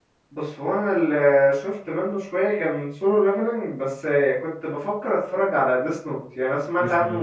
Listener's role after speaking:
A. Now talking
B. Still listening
B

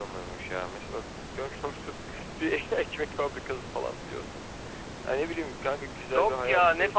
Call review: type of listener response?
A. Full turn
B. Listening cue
A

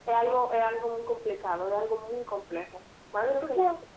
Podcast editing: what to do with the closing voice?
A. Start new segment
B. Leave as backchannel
A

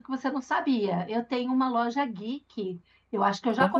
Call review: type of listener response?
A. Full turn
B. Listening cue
B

